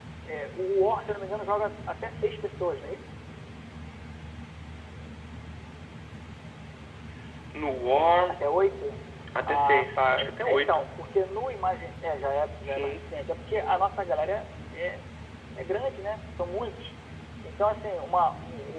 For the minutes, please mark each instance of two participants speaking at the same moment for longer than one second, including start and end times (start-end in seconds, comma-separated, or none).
9.5-10.8